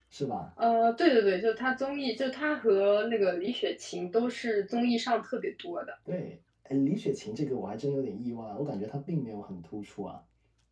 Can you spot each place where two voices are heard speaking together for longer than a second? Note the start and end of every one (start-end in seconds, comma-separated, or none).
none